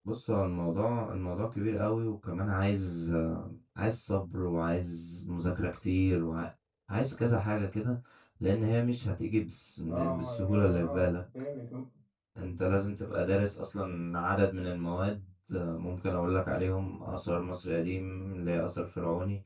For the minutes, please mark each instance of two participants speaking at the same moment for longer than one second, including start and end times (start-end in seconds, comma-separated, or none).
9.9-11.1